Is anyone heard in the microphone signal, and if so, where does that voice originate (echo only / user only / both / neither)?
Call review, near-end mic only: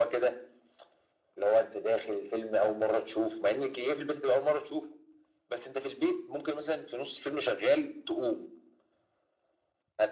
echo only